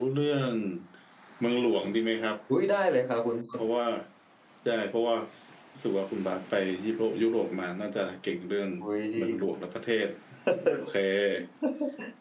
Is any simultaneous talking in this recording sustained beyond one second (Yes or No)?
No